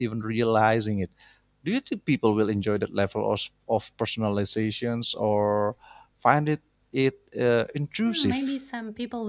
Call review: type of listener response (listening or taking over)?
taking over